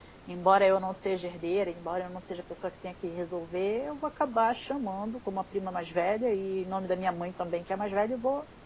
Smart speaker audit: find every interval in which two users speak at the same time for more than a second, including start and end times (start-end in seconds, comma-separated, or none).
none